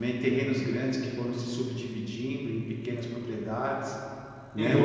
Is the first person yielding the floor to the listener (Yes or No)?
Yes